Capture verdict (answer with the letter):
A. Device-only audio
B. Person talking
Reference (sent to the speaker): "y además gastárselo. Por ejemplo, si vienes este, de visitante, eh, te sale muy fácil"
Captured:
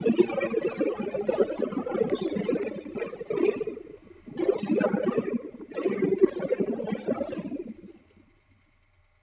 A